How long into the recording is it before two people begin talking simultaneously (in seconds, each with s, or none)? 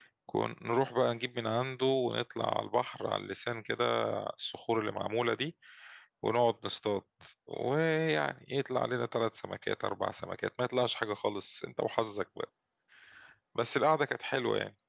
none